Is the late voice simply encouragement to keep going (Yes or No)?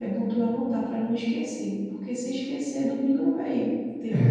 No